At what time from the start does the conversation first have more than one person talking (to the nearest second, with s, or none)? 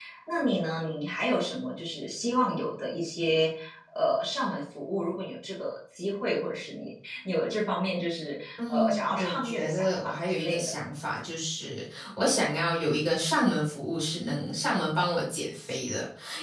9 s